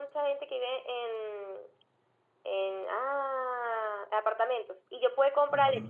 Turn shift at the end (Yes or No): No